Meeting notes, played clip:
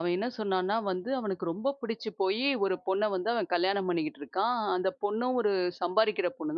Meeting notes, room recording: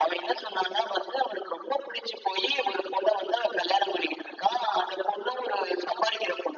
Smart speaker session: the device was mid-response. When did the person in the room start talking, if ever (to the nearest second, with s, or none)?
none